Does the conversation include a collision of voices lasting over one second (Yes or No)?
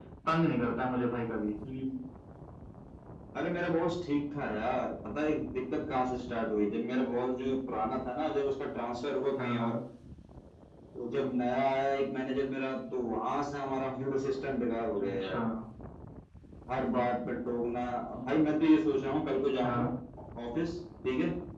No